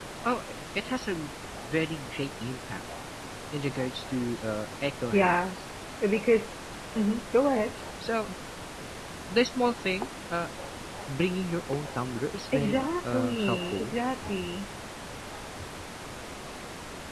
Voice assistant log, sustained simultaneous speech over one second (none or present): present